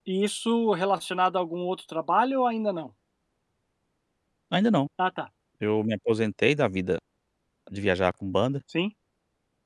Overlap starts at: none

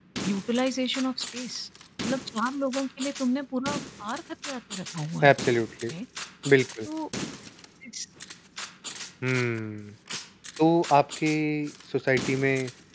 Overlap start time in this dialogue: none

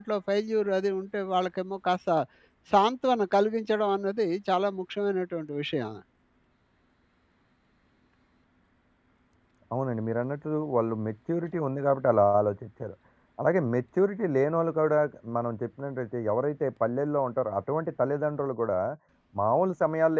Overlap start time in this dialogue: none

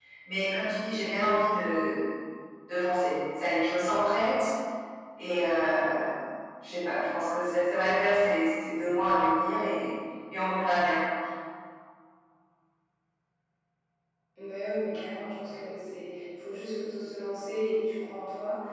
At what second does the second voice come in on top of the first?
none

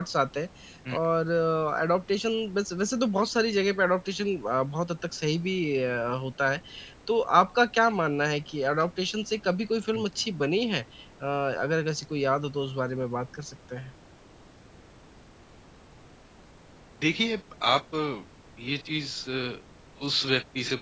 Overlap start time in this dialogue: none

